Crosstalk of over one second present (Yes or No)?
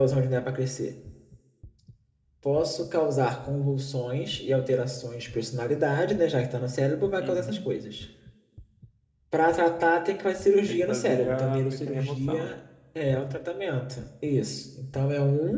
Yes